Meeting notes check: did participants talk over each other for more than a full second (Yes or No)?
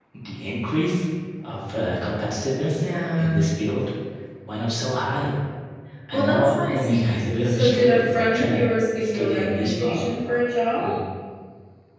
Yes